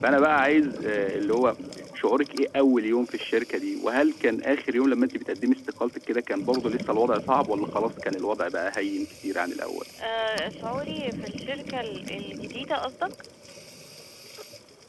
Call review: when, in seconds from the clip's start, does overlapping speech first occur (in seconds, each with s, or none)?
none